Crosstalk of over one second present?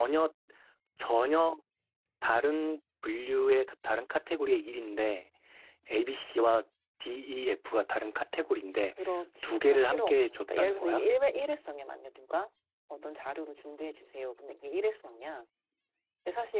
Yes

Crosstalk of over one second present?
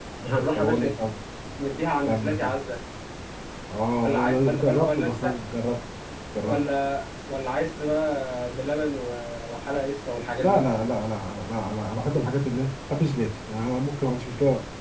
Yes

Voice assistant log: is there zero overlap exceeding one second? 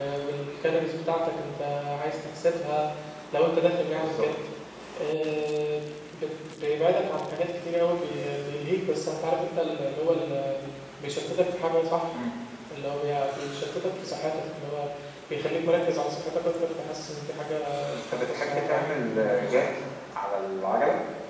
No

